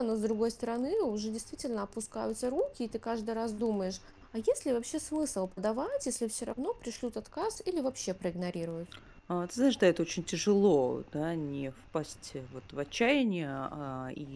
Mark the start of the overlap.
none

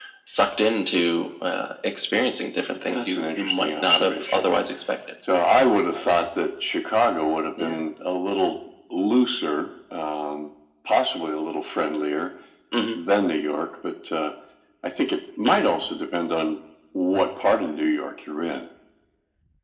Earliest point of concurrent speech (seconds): 2.9 s

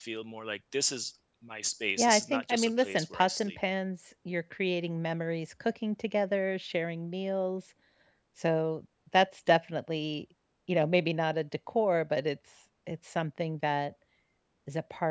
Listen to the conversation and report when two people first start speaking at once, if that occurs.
2.0 s

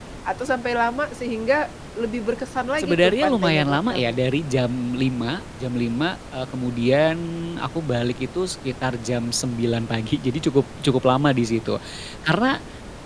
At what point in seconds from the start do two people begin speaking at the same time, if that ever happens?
2.8 s

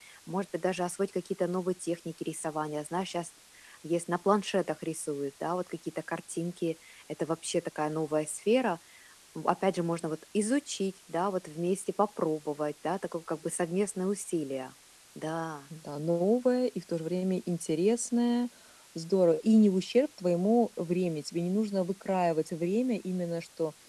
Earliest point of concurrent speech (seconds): none

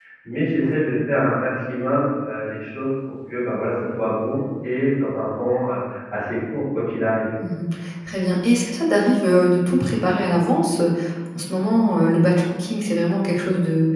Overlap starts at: none

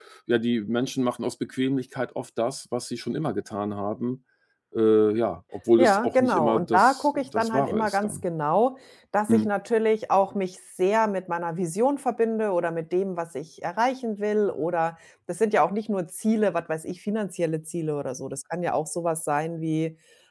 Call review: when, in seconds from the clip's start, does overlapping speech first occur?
5.8 s

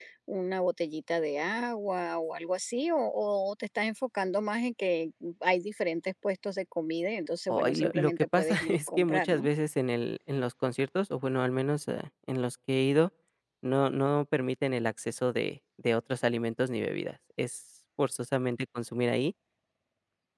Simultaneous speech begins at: 7.5 s

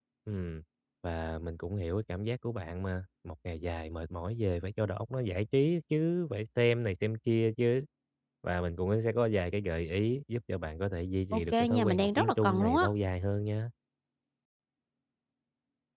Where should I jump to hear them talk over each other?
11.3 s

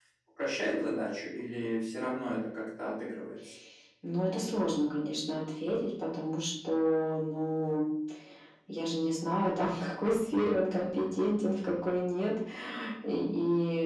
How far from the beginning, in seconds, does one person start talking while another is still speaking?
none

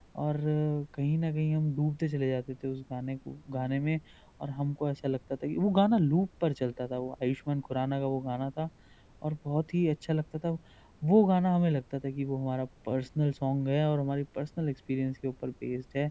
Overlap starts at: none

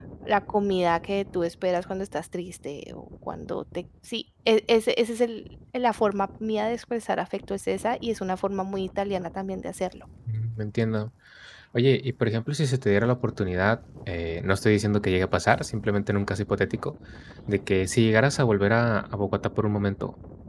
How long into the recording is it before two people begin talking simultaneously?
none

